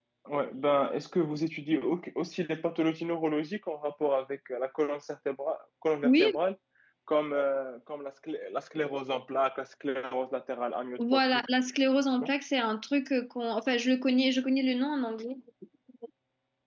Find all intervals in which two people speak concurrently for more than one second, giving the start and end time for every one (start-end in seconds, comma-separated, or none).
none